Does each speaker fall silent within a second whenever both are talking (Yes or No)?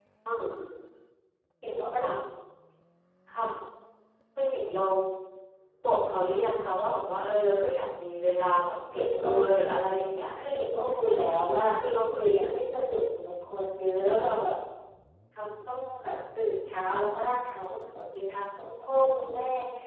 Yes